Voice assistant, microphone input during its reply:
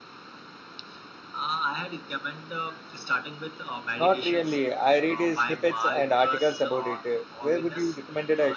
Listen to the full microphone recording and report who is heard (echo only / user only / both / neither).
both